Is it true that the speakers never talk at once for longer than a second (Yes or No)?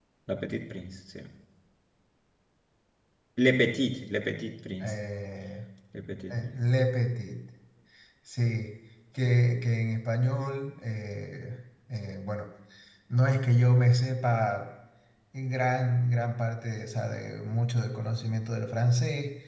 Yes